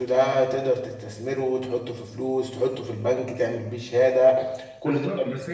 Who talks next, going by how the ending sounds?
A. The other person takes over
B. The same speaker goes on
A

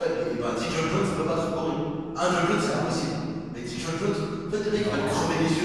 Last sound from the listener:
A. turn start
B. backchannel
B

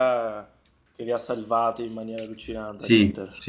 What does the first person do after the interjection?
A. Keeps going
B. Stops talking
B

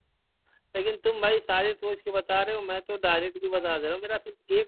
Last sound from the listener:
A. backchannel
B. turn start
A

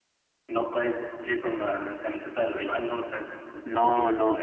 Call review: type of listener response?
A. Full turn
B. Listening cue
A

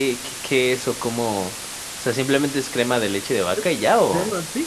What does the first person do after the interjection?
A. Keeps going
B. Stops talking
B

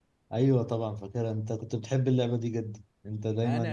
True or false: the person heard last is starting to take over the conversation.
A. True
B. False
A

